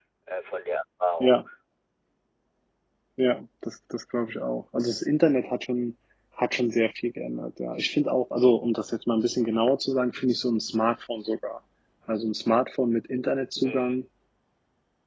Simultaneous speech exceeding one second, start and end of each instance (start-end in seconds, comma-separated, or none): none